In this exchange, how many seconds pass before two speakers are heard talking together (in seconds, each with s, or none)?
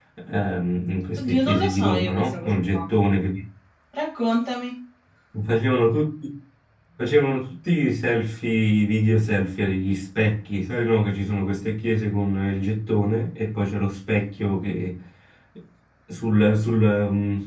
1.3 s